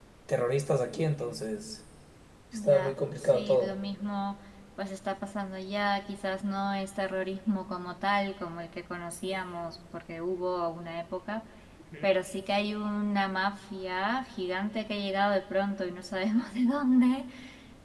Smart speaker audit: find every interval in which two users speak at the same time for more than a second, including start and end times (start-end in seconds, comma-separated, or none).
2.5-3.8